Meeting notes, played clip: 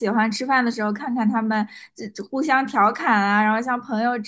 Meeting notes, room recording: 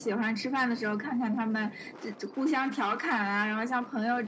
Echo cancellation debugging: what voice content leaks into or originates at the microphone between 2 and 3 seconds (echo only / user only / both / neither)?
echo only